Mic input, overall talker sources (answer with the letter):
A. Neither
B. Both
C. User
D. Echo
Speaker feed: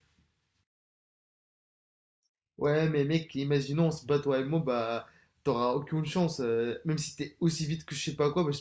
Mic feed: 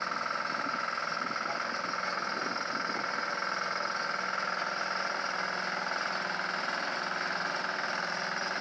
A